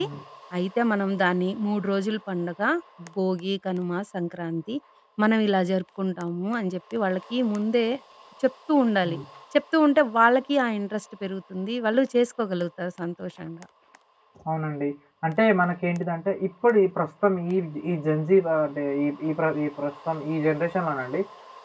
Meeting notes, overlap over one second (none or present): none